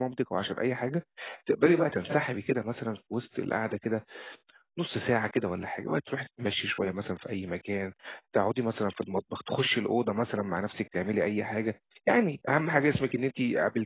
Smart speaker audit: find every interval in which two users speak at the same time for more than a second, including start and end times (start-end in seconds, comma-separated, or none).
none